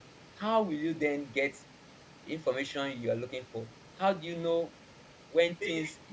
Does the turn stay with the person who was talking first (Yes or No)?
Yes